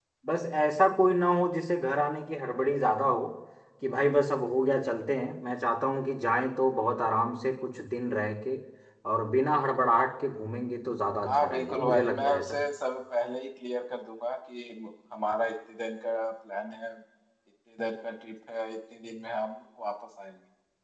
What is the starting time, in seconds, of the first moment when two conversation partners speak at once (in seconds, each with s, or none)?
11.3 s